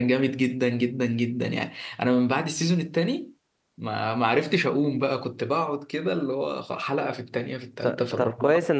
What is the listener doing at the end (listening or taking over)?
taking over